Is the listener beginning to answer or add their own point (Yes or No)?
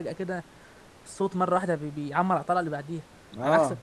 Yes